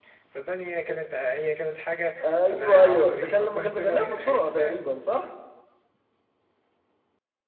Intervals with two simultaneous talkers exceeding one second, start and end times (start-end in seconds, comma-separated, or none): 2.5-4.8